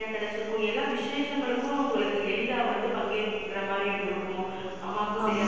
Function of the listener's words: listening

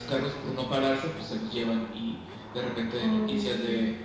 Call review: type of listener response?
listening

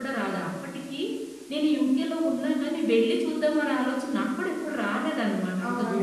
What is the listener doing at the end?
taking over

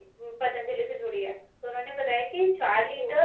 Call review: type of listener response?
listening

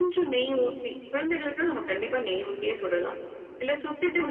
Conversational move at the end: listening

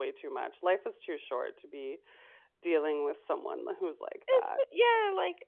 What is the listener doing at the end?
taking over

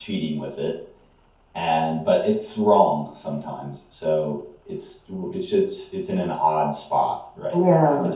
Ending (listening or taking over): taking over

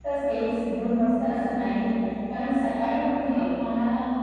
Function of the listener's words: listening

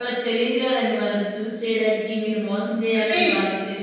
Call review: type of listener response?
listening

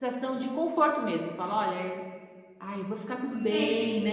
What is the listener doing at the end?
taking over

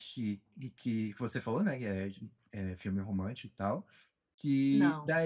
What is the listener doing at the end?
listening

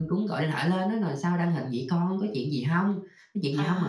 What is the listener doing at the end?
listening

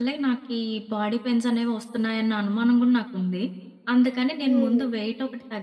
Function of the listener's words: listening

